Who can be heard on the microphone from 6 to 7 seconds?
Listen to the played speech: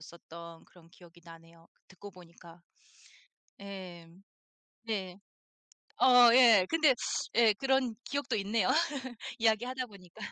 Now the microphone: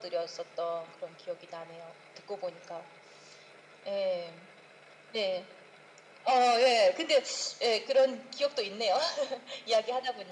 echo only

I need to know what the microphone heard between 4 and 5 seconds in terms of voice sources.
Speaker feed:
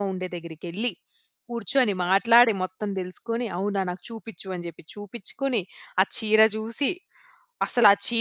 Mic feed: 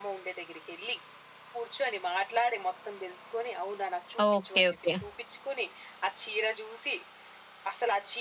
both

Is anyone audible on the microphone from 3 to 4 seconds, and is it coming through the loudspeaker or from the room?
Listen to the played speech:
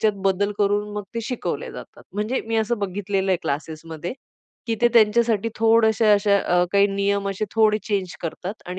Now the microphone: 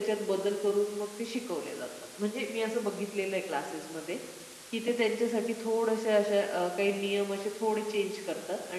echo only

